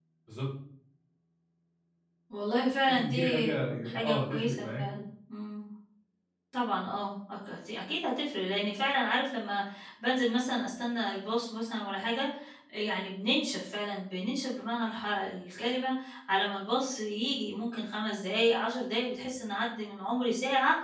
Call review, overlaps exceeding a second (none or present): present